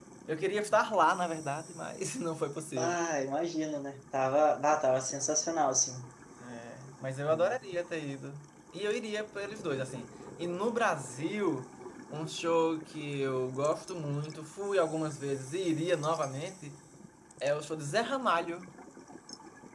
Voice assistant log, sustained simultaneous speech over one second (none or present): none